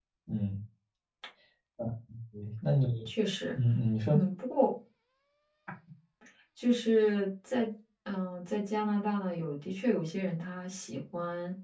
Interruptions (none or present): none